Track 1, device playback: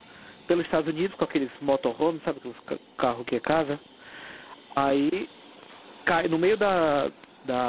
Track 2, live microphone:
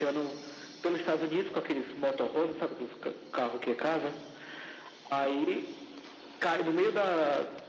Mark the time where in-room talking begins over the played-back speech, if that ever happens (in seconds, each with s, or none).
none